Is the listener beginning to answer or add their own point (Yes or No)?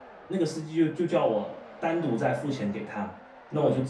No